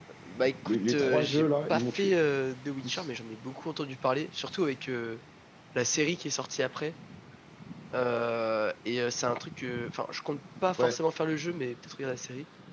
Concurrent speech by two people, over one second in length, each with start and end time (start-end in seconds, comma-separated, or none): 0.7-2.1